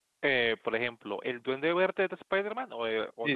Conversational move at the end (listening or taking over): taking over